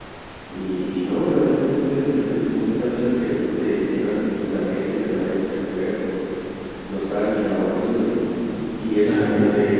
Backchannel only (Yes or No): Yes